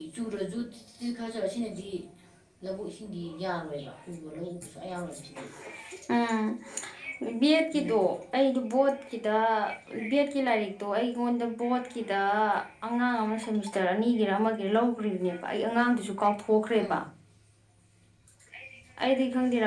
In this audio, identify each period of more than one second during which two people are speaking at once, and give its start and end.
none

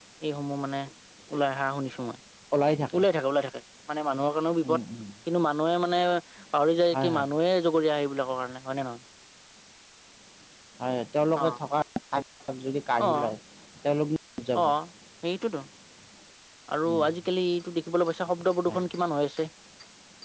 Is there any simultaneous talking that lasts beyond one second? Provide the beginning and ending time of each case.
none

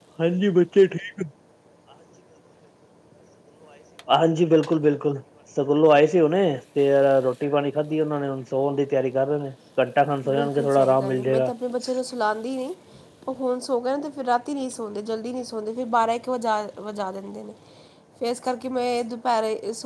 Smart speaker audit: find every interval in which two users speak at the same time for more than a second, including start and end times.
10.2-11.5

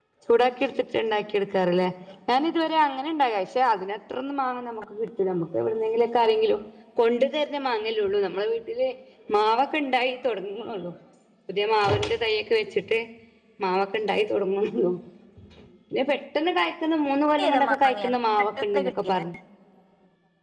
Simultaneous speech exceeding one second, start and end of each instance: 17.4-19.2

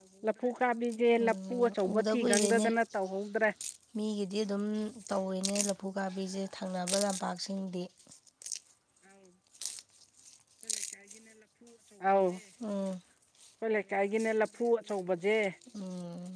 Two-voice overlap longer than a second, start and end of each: 1.2-2.7

